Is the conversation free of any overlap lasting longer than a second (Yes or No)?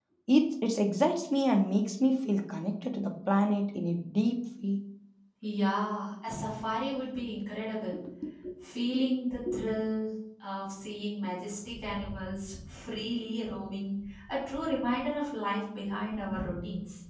Yes